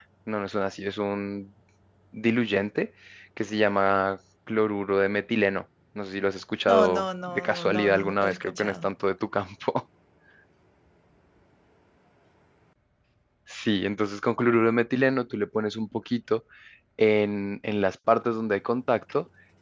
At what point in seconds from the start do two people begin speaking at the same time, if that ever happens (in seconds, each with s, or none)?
6.7 s